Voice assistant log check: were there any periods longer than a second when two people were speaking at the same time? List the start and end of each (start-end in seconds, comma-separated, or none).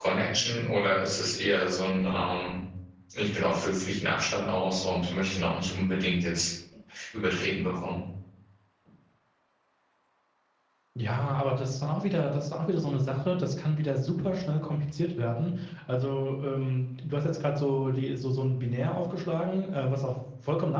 none